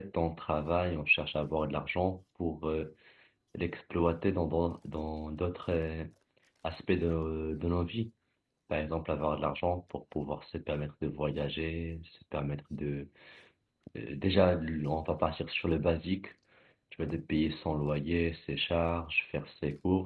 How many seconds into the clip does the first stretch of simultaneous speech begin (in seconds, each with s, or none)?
none